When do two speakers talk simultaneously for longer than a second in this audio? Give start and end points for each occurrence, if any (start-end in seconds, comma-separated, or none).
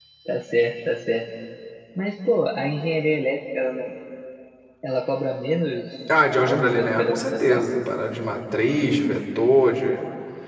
6.4-7.6